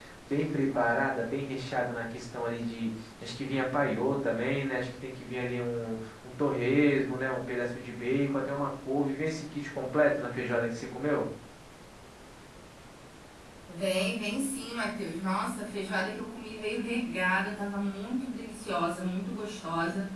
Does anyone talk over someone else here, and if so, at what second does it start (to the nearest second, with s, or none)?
none